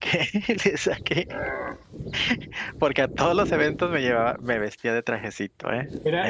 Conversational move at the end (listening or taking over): taking over